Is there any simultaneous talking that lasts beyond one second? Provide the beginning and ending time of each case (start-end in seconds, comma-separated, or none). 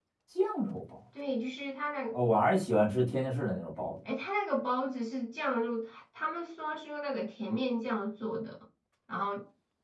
none